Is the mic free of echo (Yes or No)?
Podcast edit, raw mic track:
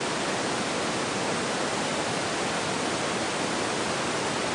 Yes